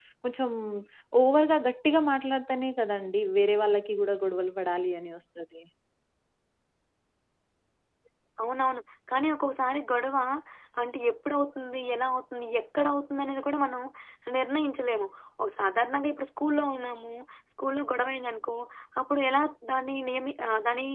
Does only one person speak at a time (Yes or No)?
Yes